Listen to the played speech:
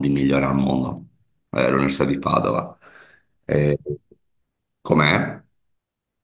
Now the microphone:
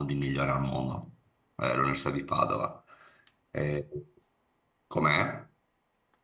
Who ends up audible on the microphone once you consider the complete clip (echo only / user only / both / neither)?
echo only